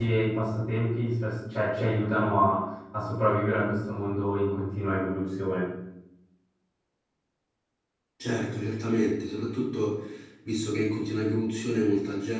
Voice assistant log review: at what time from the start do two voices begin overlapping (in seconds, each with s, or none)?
none